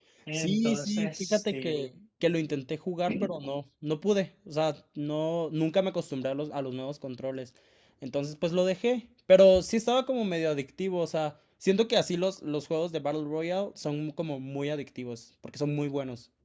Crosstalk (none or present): present